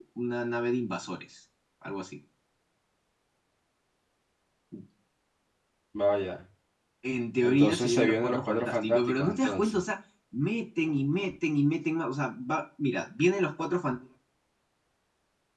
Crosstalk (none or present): present